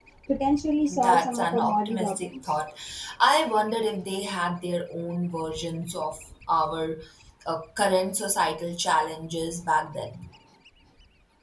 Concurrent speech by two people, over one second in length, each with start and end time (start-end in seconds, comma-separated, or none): 0.9-2.6